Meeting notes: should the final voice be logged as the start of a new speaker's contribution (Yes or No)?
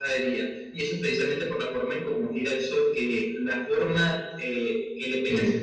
No